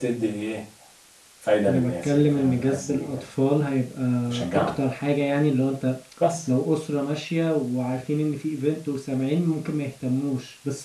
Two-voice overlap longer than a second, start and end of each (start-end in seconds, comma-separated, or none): 1.7-3.2